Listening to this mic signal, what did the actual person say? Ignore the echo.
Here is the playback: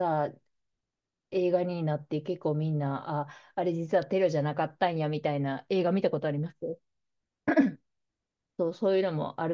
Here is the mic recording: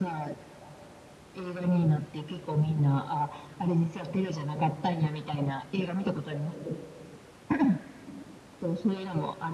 none

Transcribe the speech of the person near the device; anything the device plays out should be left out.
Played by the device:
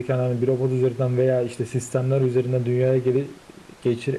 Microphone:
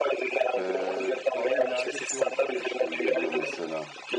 Ee, bana ileride şey olacakmış gibi geliyor mesela.

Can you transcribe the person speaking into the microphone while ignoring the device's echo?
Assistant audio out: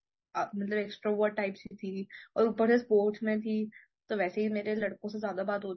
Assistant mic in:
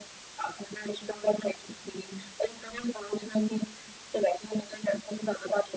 none

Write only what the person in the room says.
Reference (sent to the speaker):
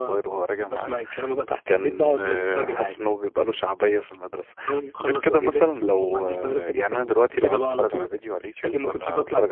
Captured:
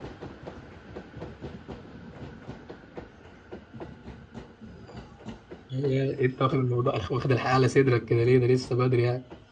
هي أنت واخد الموضوع واخد الحياة على صدرك كده ليه ده لسه بدري يعني

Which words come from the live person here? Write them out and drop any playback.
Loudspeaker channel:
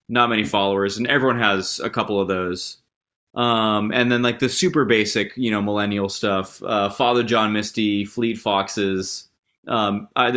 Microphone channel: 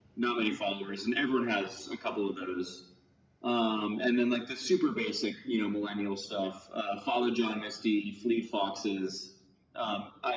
none

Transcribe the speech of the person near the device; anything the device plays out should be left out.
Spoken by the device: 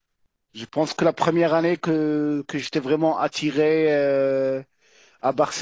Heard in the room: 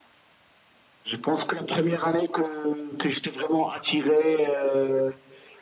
none

